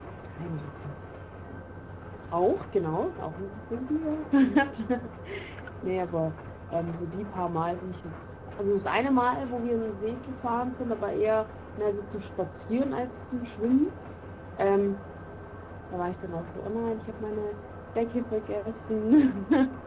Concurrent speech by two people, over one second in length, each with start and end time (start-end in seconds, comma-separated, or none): none